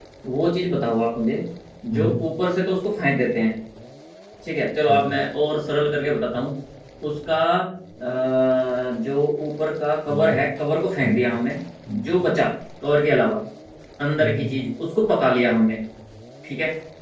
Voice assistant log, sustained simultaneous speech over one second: none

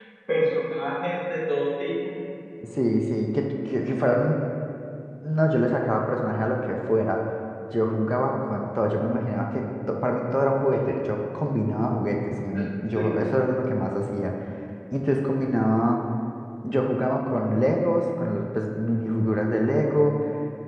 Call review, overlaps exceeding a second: none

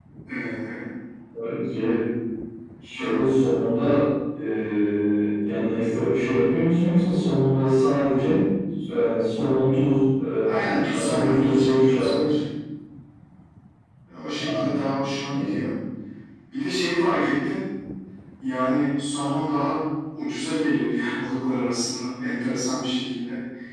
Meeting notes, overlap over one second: present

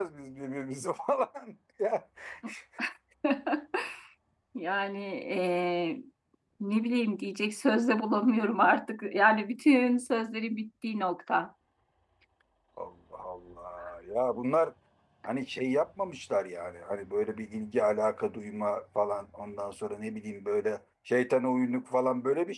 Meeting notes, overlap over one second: none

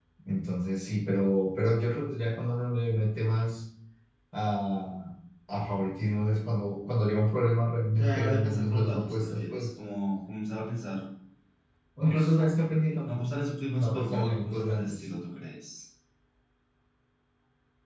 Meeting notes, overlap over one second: present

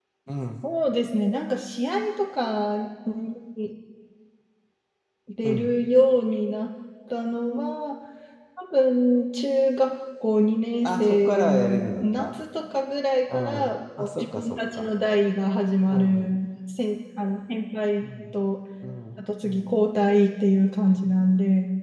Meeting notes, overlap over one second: present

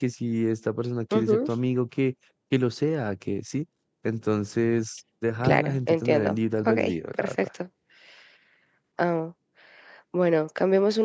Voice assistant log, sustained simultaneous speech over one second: present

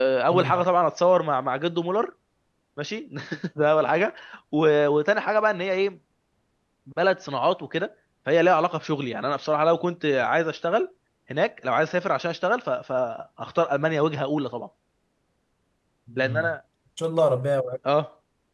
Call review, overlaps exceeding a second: none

